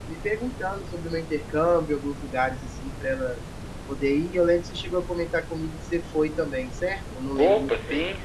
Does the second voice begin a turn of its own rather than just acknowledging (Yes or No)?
Yes